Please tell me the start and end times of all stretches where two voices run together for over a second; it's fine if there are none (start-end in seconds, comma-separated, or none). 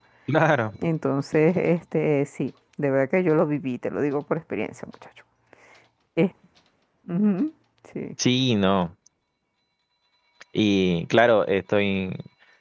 none